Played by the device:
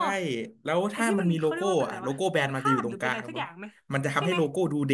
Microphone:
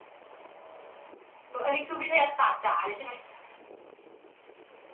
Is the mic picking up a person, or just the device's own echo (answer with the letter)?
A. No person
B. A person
B